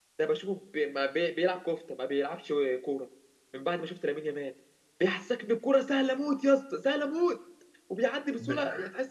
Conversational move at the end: listening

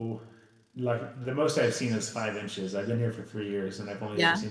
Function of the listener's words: listening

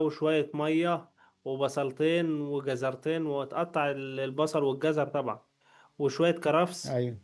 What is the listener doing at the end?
listening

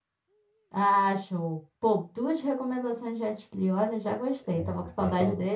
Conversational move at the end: taking over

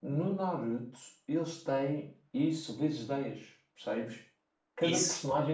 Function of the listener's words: listening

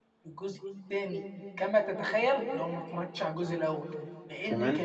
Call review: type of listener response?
listening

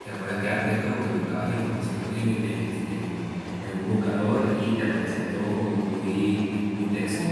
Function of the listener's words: taking over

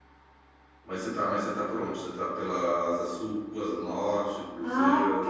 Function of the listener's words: taking over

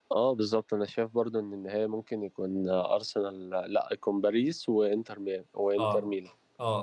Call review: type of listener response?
taking over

